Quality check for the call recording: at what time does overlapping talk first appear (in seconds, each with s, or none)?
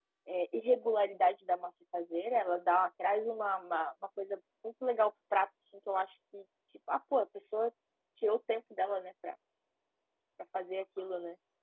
none